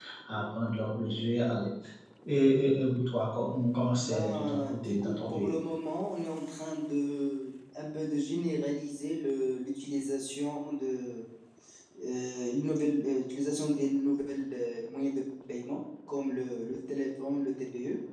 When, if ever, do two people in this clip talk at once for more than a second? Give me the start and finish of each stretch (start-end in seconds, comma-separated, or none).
4.0-5.5